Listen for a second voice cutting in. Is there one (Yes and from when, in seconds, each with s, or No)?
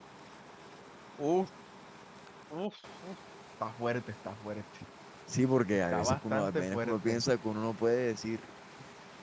Yes, from 5.9 s